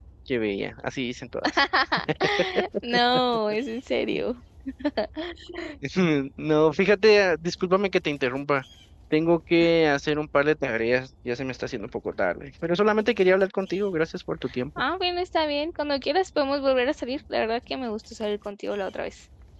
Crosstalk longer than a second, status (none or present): none